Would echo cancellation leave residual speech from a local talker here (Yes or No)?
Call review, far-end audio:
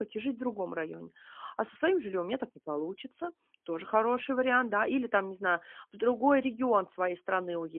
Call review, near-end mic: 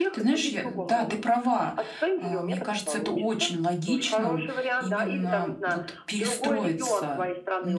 Yes